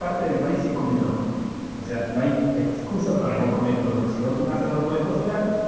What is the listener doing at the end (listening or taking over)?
listening